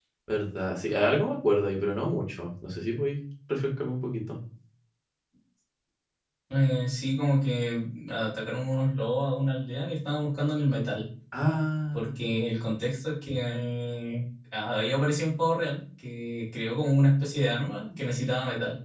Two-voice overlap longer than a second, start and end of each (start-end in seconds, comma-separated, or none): none